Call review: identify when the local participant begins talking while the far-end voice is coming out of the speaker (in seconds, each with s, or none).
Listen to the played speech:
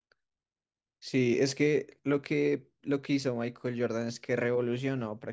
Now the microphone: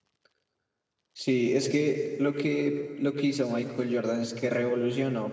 none